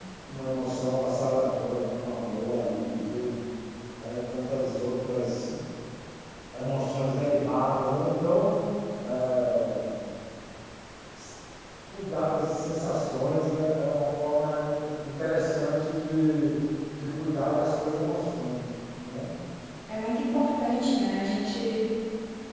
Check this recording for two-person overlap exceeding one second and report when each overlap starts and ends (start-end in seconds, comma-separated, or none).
none